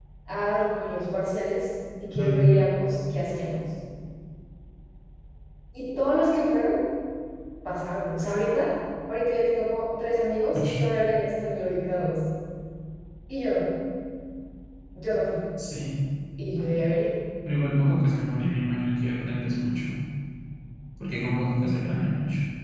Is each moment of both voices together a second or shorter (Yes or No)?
Yes